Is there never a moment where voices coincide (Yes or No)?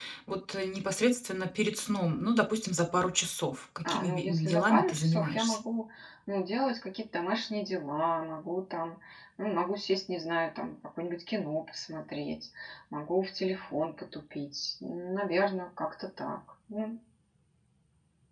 No